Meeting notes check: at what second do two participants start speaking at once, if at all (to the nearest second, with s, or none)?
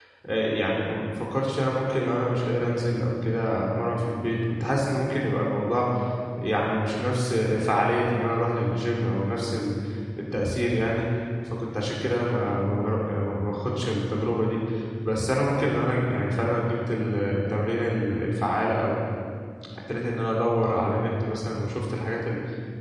none